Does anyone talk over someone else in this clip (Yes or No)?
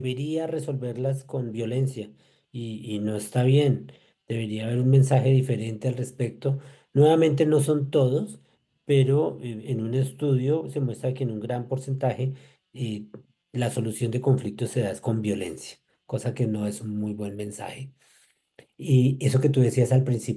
No